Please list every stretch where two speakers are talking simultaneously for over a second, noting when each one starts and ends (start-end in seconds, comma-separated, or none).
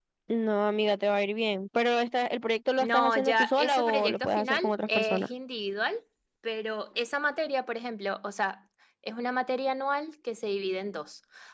2.8-5.3